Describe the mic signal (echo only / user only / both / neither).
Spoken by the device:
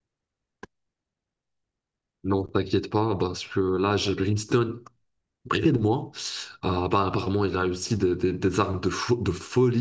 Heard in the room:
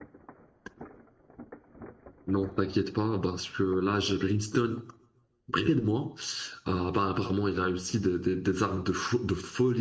echo only